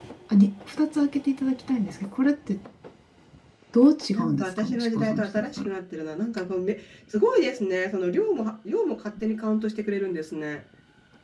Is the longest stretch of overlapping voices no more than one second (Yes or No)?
No